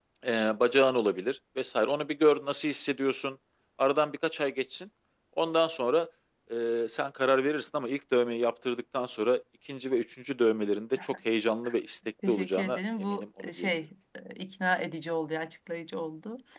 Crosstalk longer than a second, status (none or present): present